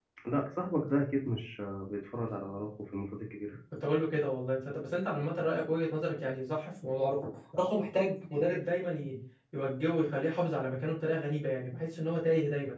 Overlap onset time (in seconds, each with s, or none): none